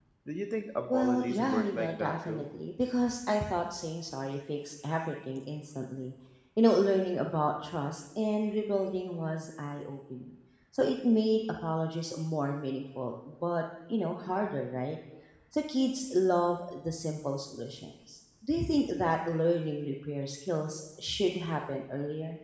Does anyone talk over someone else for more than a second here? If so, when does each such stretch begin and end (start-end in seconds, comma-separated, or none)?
0.9-2.5